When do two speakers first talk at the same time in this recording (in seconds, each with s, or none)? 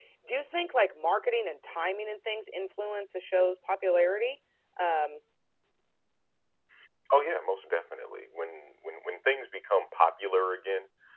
none